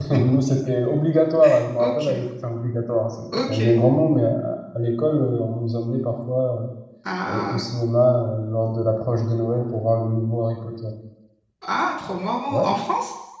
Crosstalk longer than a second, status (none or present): none